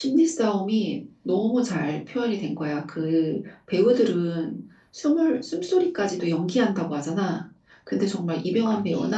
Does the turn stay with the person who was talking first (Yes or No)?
Yes